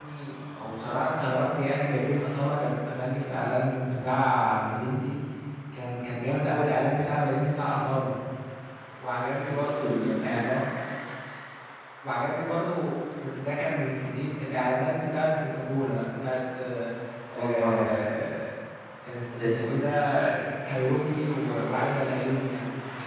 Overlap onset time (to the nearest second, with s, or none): 9 s